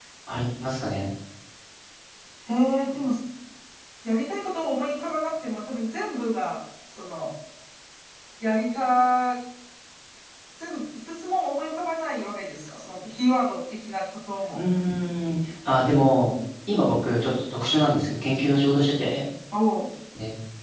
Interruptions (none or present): none